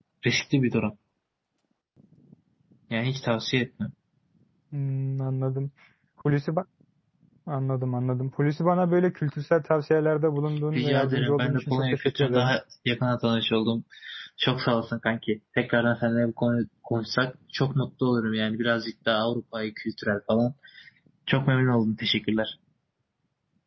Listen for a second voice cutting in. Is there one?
Yes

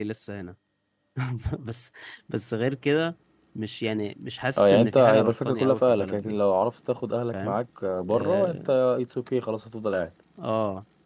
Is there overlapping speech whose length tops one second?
Yes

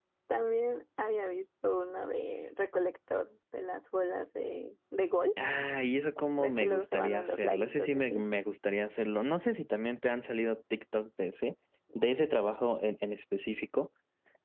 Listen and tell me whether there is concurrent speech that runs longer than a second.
Yes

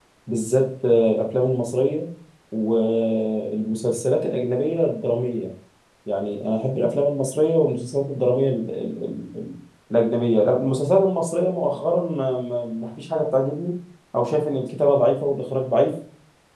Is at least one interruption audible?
No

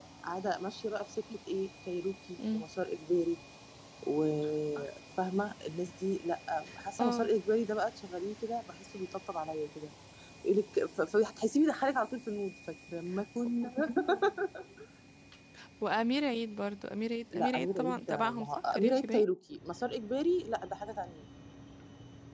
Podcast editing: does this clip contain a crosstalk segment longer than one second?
Yes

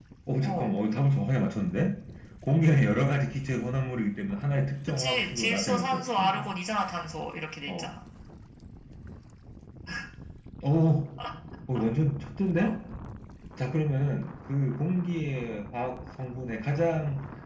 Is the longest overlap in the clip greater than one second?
Yes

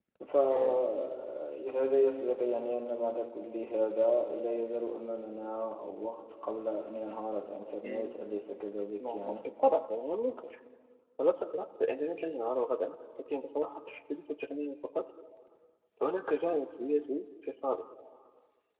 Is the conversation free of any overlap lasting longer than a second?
Yes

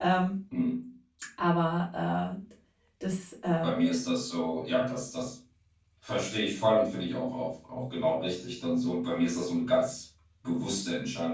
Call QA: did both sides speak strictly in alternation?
Yes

